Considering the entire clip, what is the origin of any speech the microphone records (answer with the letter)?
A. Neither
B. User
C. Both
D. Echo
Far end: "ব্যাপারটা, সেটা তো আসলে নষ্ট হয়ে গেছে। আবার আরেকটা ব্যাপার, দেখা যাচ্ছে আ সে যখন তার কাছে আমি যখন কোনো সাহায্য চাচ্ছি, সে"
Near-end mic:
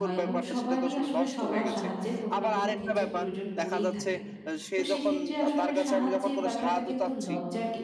C